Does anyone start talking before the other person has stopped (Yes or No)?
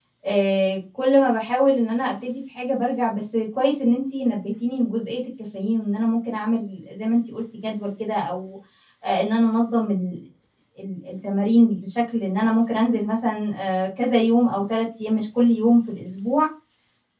No